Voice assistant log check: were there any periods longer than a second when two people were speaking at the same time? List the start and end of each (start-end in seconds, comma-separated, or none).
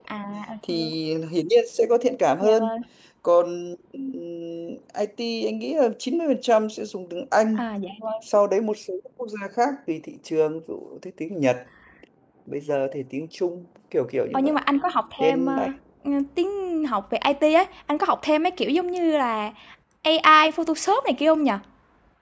none